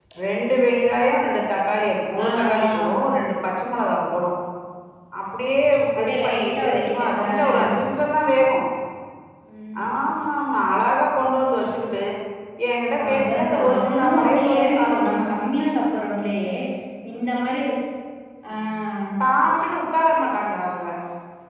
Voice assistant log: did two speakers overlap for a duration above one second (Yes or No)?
Yes